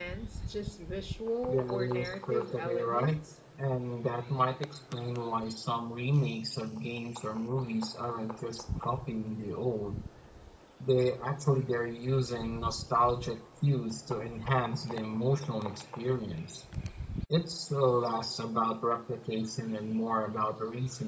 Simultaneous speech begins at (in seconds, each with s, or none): 1.5 s